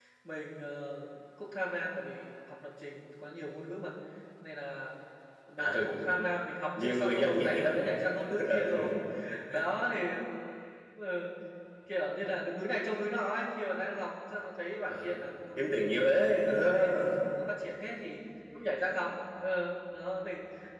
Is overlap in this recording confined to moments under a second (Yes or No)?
No